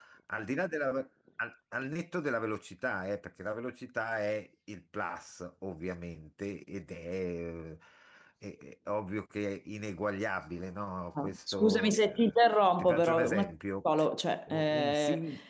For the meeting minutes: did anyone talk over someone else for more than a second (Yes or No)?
Yes